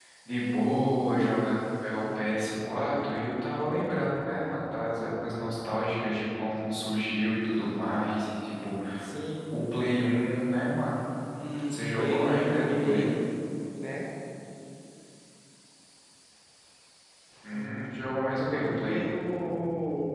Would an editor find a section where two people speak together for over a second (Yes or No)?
Yes